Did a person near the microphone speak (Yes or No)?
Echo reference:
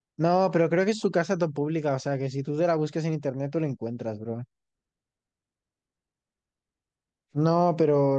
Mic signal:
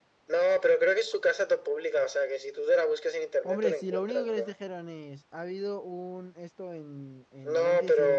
Yes